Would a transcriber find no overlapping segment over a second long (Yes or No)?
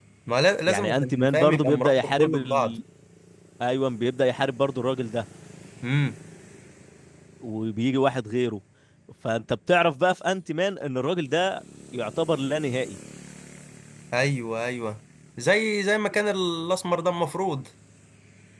No